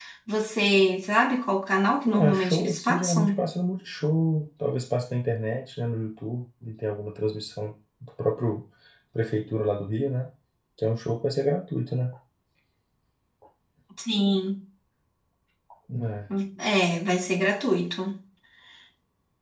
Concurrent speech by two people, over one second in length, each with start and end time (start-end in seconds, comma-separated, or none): 2.2-3.4